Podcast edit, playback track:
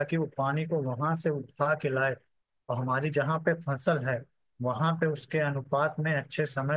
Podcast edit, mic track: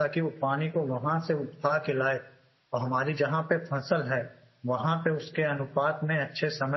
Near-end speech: none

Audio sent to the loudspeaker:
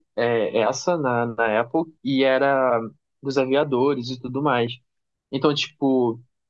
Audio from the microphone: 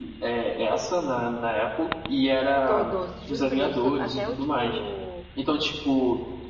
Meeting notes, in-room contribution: present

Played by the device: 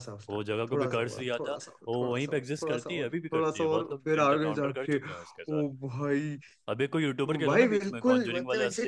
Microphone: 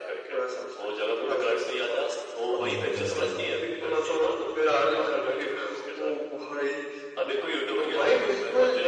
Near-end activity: present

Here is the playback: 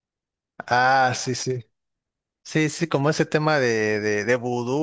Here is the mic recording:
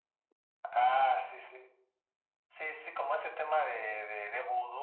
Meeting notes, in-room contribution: none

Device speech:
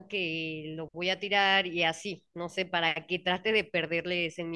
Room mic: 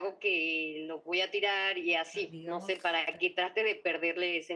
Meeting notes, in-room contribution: present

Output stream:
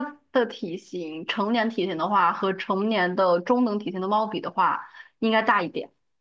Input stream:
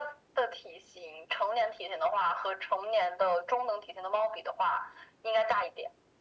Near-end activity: none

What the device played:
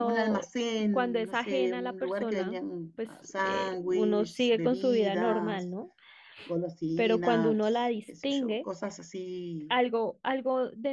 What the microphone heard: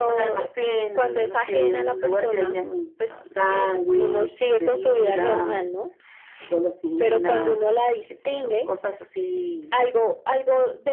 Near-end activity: none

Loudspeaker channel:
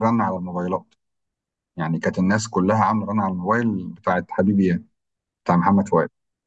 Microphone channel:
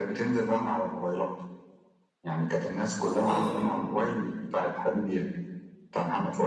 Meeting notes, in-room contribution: present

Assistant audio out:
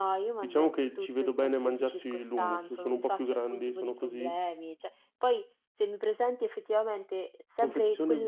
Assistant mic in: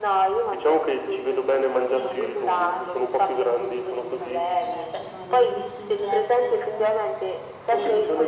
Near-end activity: present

